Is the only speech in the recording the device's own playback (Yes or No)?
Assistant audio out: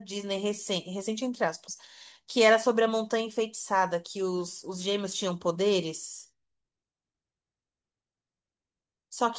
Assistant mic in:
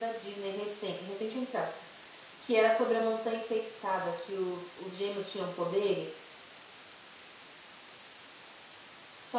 Yes